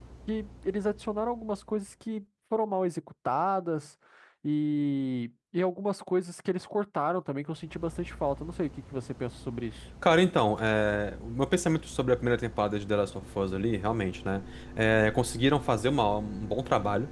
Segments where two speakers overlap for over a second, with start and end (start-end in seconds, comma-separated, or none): none